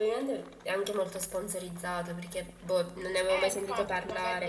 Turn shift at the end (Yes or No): Yes